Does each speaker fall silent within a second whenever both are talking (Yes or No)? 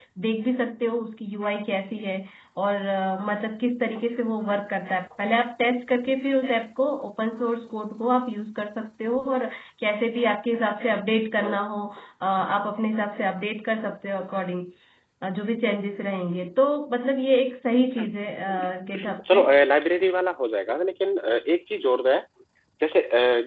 Yes